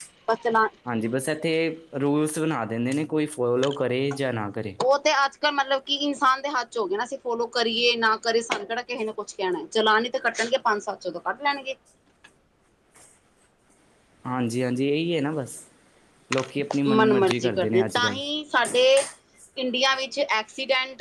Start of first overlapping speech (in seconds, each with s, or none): 17.0 s